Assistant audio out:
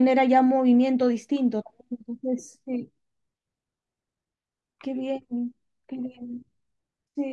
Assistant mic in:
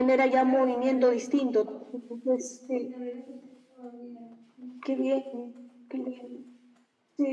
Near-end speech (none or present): present